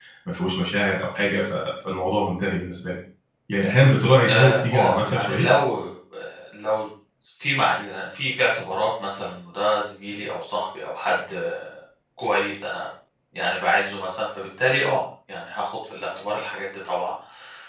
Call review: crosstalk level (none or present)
present